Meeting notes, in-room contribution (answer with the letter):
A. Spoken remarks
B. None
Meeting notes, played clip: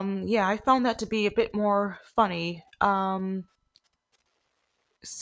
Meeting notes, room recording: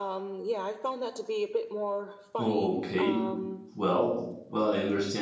A